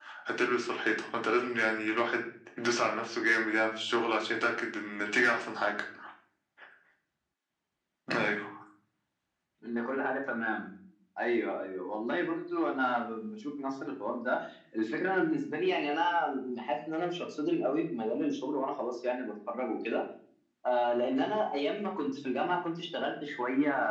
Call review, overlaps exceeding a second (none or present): none